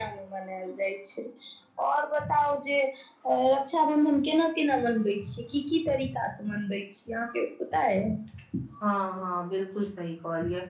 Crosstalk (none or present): none